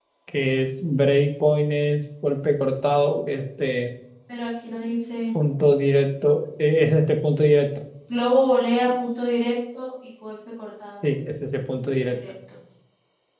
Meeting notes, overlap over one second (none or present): none